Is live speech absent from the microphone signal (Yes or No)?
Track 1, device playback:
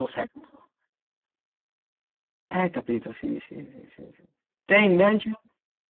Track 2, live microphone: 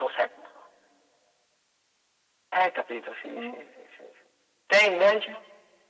No